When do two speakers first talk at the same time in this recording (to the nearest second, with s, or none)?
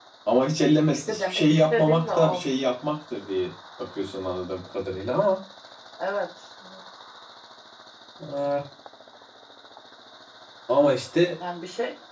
1 s